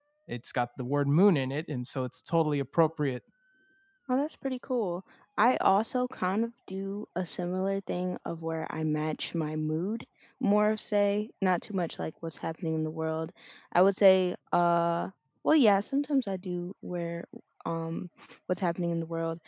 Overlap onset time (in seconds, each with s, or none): none